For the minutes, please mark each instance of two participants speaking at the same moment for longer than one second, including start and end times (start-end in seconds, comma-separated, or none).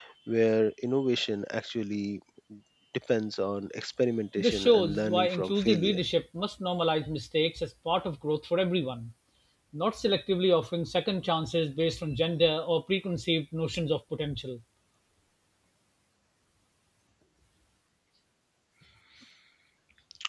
4.4-6.0